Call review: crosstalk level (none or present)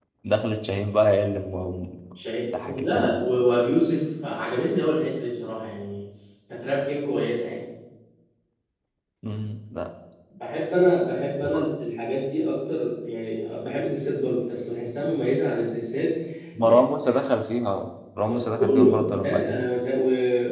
present